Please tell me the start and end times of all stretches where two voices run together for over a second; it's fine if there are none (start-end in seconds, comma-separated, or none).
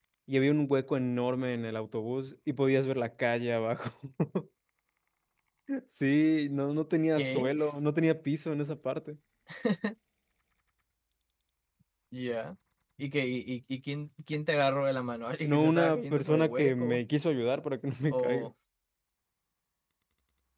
15.4-17.0